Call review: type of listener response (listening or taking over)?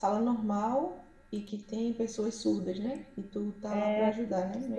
taking over